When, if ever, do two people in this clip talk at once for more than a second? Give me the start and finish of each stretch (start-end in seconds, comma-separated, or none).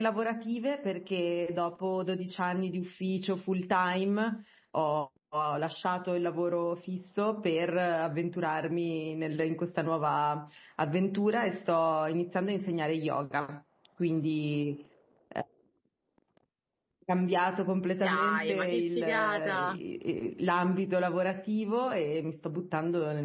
18.0-19.8